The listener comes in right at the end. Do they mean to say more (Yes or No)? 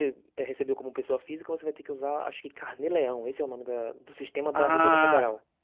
Yes